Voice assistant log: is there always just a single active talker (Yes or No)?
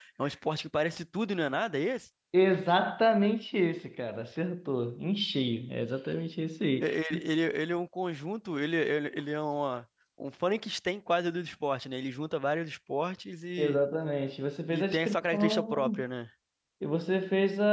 No